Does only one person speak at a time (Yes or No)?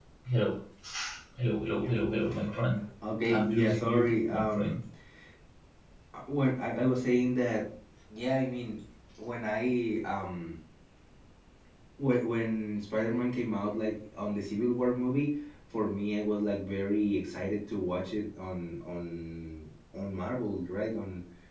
No